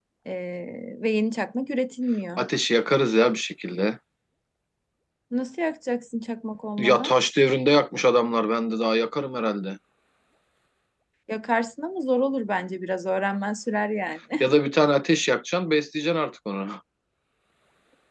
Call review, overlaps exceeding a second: none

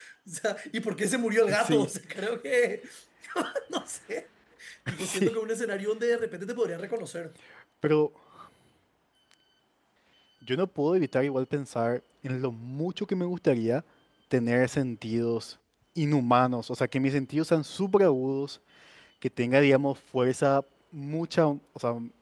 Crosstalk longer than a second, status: none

